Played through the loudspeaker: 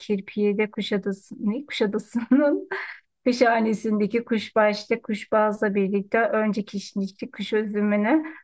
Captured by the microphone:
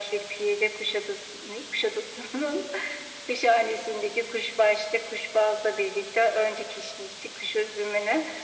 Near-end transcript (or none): none